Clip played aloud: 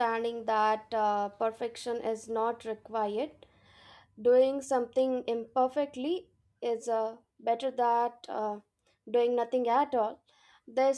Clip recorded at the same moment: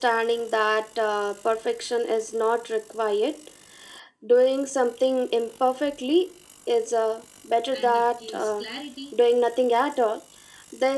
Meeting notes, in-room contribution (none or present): present